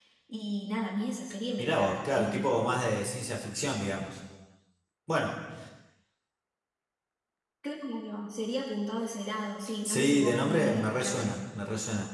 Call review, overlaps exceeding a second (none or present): present